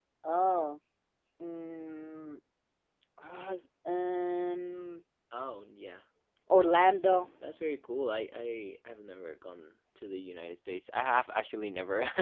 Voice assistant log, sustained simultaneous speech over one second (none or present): none